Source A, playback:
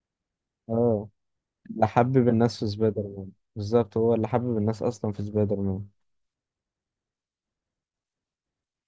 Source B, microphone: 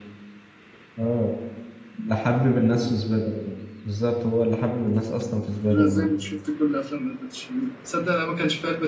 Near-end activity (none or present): present